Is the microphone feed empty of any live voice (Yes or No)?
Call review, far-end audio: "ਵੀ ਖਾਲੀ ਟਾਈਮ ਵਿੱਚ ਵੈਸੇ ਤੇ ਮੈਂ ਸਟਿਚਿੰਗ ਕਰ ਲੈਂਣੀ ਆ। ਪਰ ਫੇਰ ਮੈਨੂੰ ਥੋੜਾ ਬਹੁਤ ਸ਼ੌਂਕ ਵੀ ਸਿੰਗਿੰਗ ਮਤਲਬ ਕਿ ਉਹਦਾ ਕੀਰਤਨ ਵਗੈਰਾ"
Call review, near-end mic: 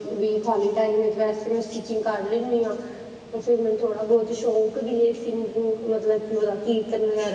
Yes